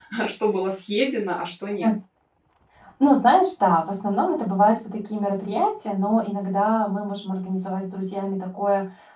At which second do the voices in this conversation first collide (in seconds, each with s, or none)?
none